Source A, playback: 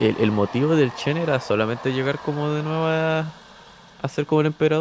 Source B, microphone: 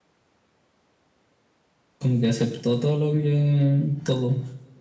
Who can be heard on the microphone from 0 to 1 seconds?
neither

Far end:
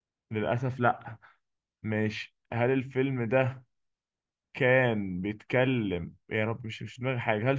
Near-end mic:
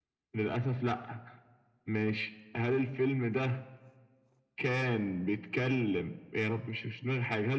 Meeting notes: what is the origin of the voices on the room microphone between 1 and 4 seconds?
echo only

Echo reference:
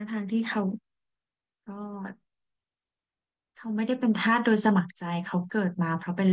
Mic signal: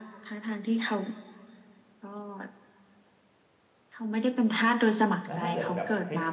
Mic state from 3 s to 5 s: echo only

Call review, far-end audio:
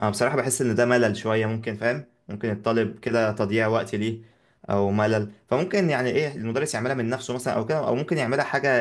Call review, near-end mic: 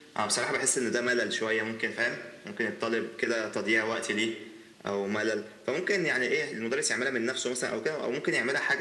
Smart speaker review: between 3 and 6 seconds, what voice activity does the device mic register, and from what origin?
echo only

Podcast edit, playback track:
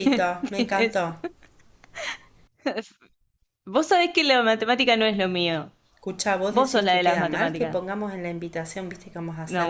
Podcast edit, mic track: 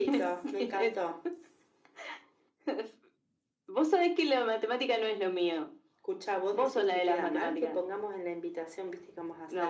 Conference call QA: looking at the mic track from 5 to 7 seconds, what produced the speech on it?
echo only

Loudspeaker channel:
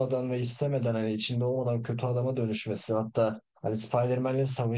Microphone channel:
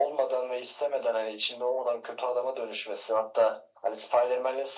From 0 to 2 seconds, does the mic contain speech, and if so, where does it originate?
echo only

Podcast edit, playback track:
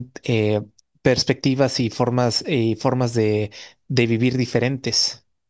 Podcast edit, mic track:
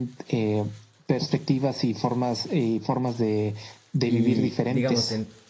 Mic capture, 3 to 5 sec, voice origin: both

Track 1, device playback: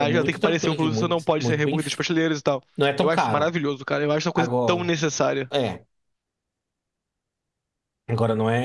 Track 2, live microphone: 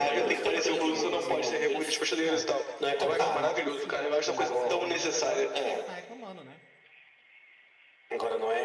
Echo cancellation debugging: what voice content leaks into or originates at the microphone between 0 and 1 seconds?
both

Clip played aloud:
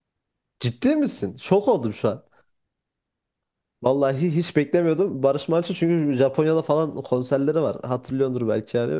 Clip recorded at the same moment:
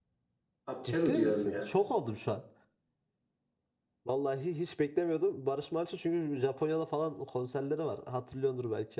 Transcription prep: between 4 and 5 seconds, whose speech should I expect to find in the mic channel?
echo only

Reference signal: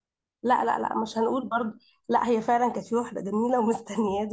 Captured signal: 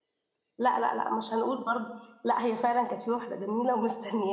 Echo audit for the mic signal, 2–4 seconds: echo only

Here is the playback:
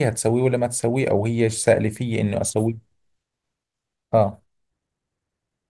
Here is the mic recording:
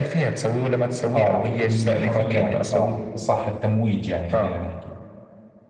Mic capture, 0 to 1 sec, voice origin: echo only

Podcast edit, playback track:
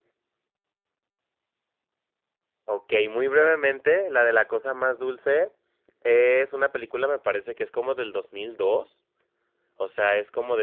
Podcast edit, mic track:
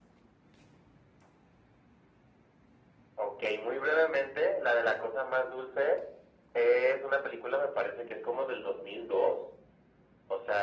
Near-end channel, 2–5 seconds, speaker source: echo only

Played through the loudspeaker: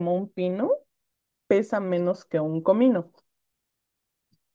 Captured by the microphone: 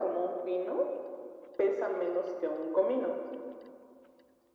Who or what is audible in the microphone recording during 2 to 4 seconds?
echo only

